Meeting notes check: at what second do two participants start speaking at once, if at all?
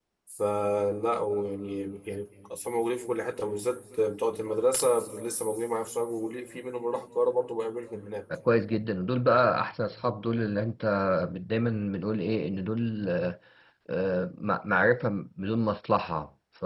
none

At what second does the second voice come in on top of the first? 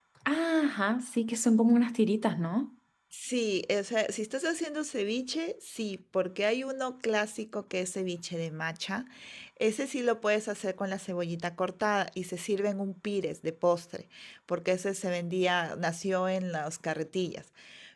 none

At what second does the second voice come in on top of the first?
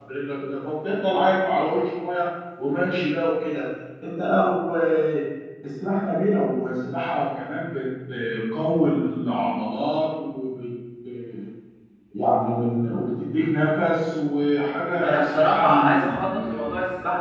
15.0 s

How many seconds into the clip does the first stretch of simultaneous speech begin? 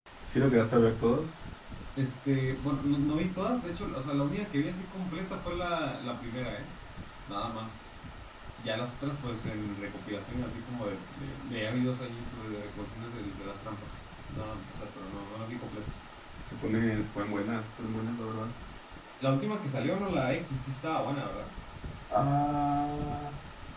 none

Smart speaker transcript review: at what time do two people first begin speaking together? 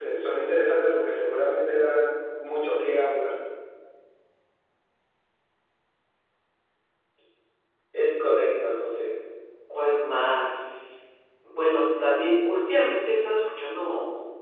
none

